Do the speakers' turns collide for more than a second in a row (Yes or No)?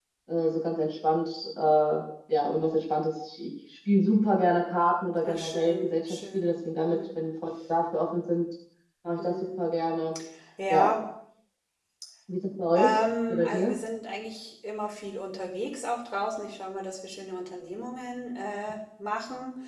Yes